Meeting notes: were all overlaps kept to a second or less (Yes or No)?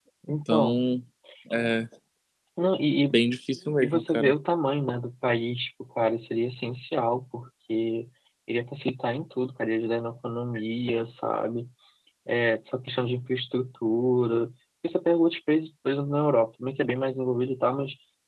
Yes